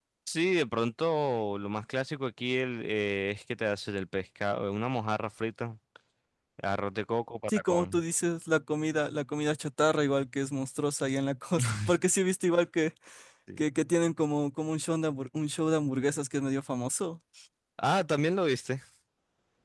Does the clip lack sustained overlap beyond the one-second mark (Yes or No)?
Yes